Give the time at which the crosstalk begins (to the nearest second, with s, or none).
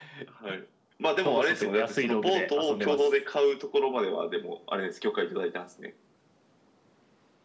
1 s